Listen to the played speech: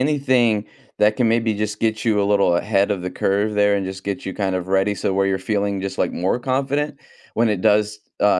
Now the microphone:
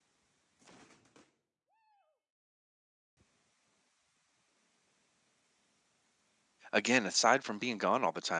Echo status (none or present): none